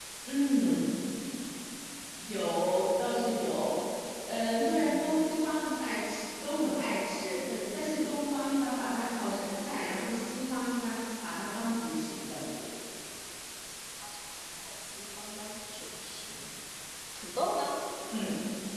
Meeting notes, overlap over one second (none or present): none